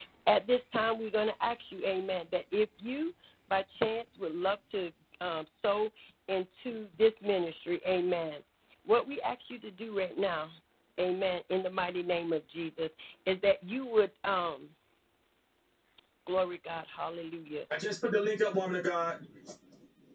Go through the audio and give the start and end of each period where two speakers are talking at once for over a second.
none

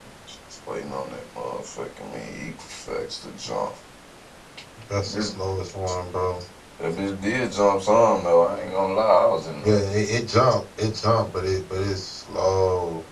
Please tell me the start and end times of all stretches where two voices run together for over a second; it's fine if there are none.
none

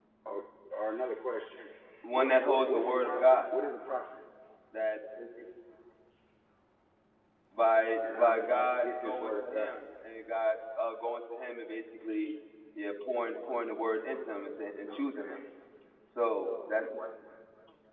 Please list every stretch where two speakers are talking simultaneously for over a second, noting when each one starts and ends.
2.1-3.4, 8.1-9.8

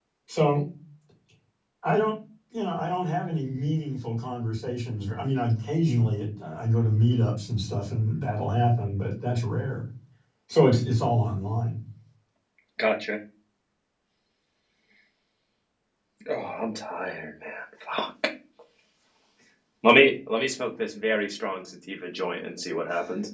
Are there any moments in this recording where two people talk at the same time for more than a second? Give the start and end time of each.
none

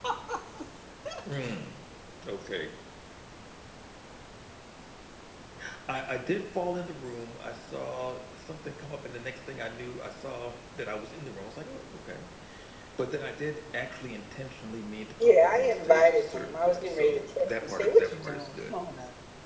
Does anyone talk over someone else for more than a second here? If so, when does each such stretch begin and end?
15.2-18.8

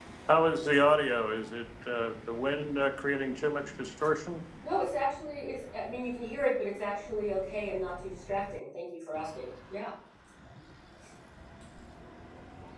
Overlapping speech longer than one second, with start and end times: none

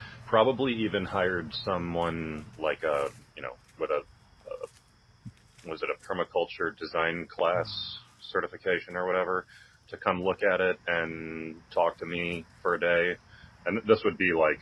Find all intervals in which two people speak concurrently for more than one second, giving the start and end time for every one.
none

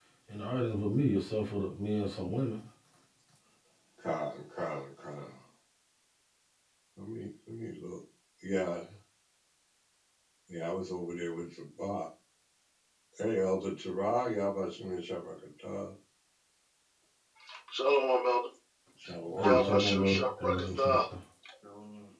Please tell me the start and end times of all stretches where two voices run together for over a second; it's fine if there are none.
19.4-21.0

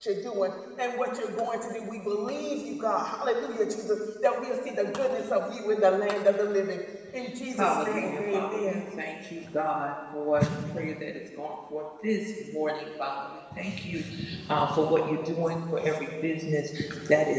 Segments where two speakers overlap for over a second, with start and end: 7.6-8.8

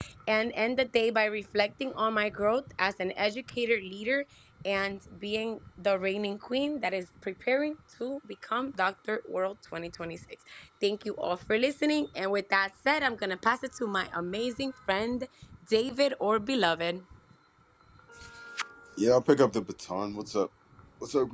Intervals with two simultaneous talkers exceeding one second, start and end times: none

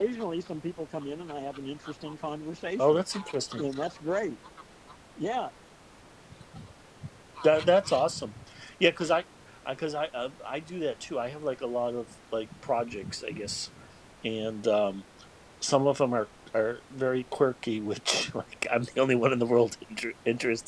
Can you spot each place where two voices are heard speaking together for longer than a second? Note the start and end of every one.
none

